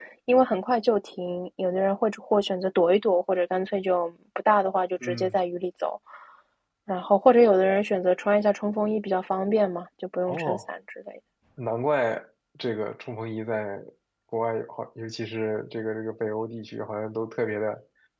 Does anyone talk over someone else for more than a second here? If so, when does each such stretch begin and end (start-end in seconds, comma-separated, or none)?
none